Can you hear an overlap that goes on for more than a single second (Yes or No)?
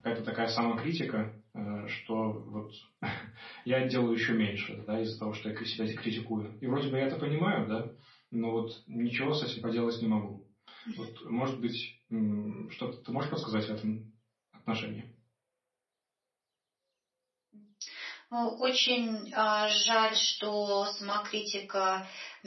No